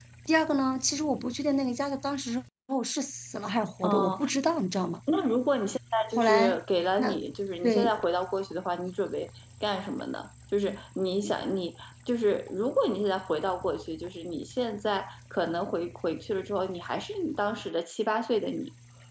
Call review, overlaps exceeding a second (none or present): none